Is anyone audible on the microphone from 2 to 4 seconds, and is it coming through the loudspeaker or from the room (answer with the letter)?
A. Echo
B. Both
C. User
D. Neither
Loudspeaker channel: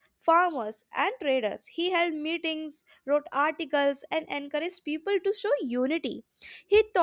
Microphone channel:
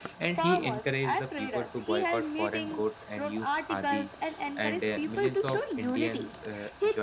B